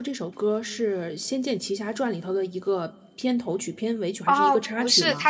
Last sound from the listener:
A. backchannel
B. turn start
B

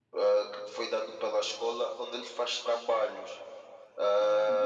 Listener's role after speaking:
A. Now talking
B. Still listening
A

